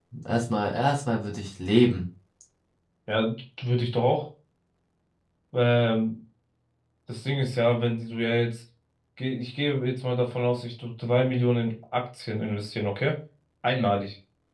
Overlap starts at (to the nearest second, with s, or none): none